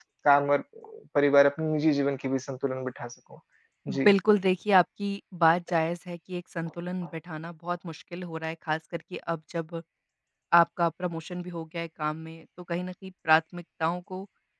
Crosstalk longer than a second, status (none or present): none